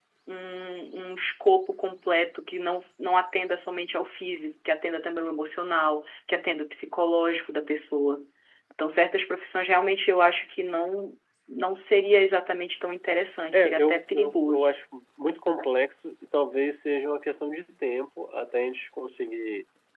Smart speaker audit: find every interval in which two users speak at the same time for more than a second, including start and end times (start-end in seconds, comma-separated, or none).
13.5-14.7